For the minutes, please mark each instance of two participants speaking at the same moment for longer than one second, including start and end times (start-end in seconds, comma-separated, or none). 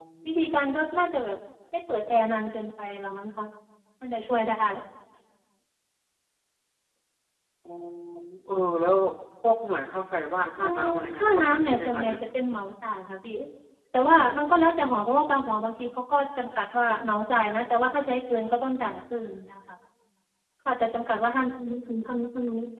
10.6-12.2